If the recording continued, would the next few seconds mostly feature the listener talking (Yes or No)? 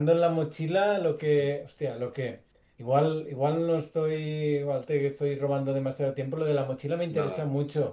No